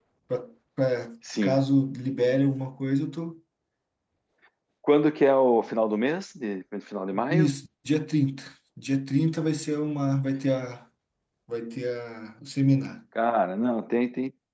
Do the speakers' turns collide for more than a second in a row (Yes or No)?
No